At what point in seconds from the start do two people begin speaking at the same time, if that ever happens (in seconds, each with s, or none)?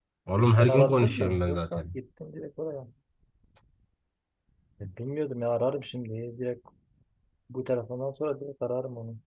0.6 s